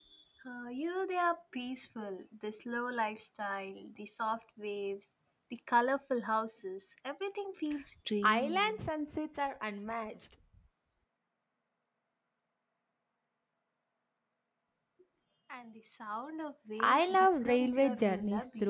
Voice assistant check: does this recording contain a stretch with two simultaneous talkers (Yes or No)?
Yes